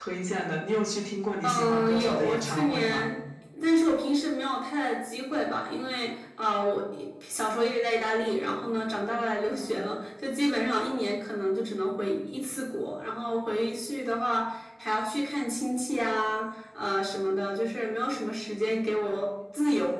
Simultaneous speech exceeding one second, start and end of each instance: 1.4-3.1

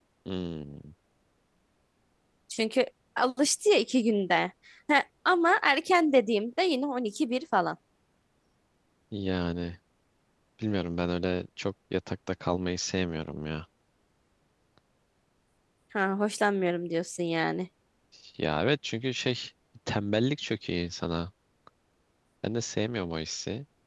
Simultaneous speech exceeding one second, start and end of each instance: none

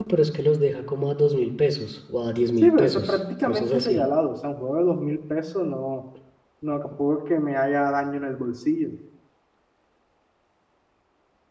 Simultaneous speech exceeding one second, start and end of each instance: 2.6-4.0

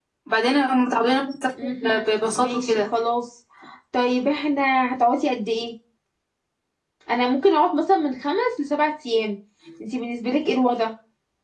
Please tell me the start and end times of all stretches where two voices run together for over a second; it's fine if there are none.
1.6-2.9

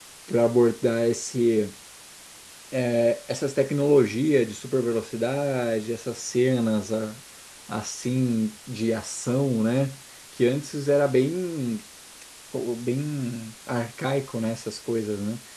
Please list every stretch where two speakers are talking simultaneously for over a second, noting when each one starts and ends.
none

